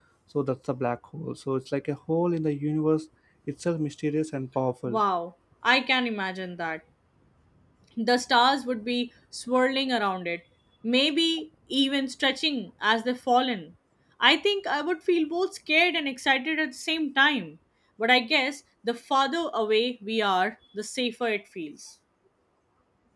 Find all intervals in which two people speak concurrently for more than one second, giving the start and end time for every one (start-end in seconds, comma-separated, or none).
none